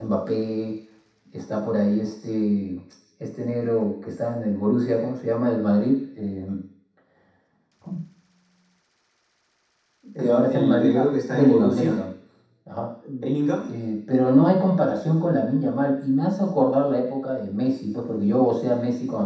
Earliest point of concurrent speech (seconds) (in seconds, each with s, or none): 10.2 s